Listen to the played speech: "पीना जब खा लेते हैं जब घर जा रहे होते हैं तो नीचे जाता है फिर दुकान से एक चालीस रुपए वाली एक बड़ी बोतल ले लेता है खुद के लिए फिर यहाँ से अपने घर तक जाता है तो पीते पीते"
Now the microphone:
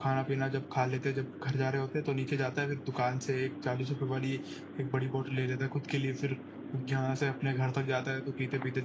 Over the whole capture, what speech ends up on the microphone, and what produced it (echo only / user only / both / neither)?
echo only